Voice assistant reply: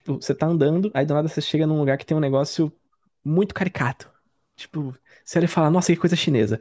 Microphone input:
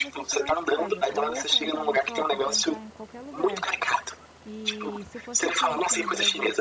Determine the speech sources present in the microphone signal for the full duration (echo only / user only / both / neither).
both